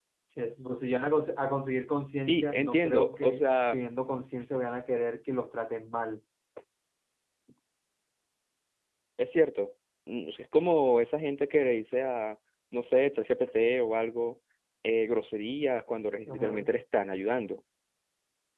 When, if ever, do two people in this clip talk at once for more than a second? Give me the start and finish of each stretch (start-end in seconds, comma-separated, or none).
2.3-3.8